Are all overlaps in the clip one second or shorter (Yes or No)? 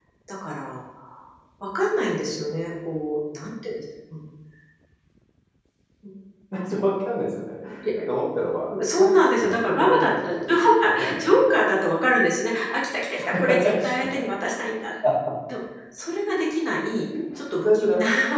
No